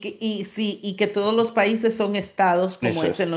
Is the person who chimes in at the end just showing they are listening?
Yes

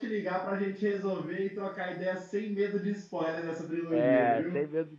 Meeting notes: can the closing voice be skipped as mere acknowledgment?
No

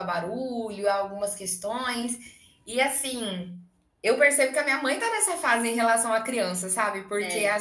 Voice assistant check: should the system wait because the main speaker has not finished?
Yes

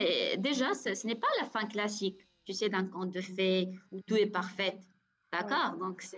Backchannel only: Yes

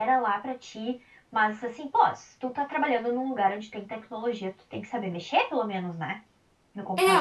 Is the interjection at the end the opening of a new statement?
Yes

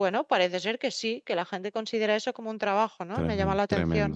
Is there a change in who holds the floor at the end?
Yes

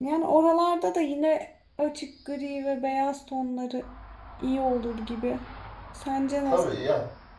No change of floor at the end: No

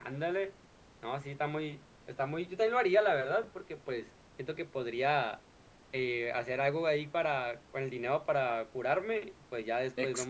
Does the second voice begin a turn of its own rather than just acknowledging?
Yes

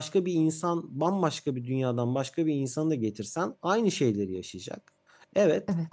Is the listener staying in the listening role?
Yes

